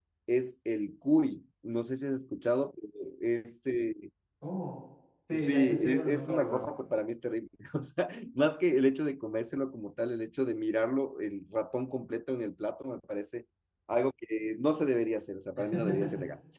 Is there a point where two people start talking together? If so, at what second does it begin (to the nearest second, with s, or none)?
5 s